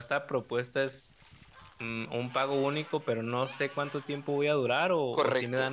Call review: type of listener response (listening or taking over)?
taking over